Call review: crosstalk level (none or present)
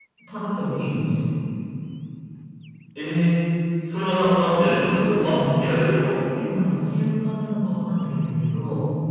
present